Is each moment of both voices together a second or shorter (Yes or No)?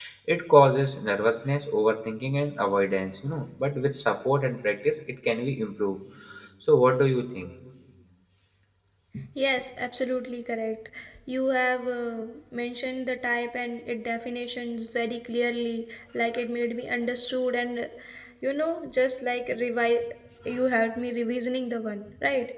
Yes